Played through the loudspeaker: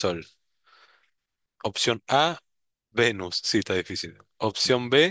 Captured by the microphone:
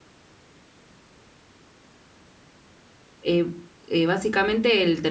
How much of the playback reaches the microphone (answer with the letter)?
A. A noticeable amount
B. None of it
B